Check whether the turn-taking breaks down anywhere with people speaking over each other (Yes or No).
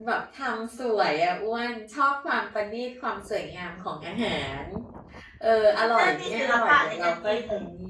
Yes